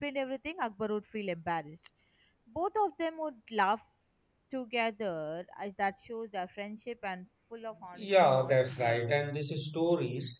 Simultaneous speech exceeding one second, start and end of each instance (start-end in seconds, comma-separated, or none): 8.0-9.3